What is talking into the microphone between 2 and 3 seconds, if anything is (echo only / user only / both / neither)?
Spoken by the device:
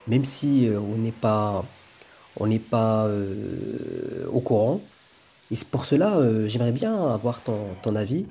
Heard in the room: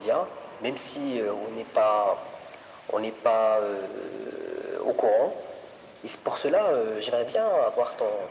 echo only